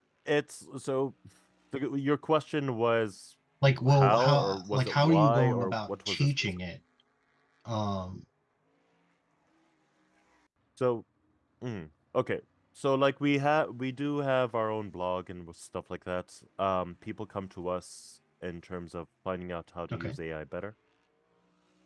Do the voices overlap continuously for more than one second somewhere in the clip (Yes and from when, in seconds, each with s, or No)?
Yes, from 3.9 s